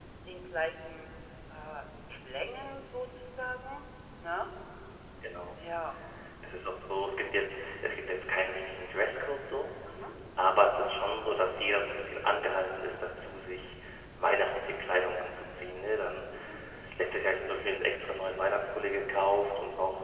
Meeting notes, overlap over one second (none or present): none